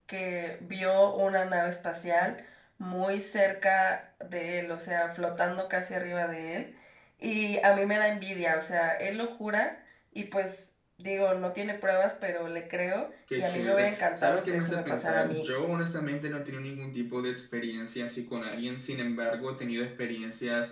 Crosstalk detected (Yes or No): Yes